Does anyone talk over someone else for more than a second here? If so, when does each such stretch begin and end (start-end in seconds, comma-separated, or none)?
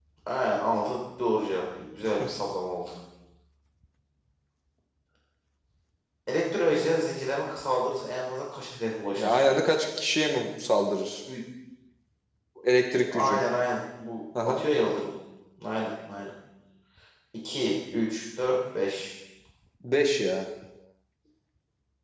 none